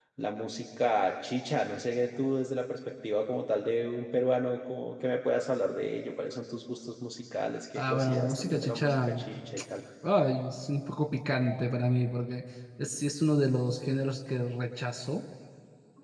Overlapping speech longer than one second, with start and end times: 7.8-9.1

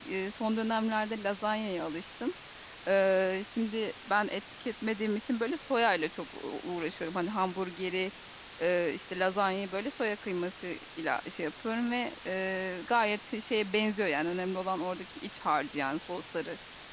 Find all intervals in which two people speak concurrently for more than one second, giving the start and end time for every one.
none

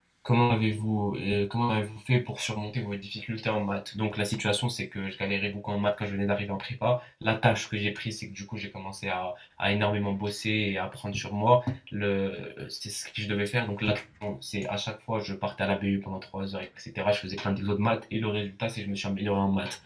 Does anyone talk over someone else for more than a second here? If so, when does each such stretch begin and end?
none

